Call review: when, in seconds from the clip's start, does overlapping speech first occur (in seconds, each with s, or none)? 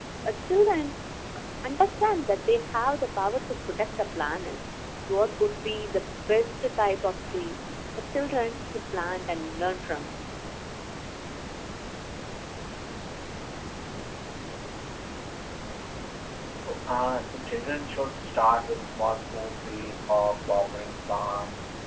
none